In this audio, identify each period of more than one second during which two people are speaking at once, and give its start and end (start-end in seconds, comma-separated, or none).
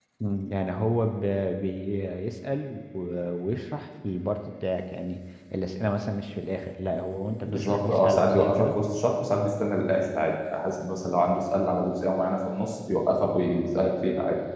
7.4-8.8